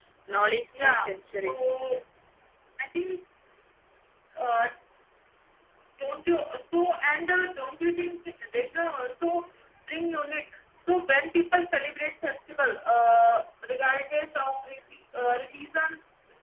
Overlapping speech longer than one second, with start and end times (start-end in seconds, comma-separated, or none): 0.7-2.0